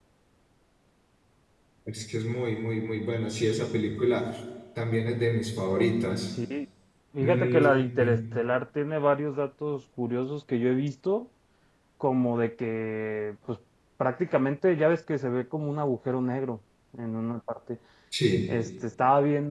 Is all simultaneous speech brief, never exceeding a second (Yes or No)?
Yes